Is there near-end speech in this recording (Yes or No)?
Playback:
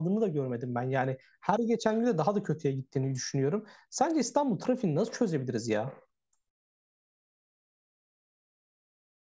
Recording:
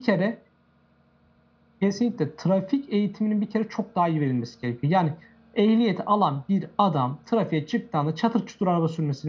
Yes